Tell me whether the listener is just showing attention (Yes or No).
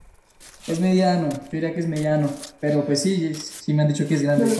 Yes